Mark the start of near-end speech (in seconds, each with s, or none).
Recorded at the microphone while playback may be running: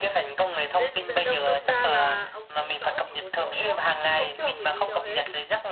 0.7 s